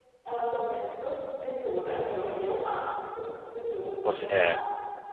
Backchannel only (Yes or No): Yes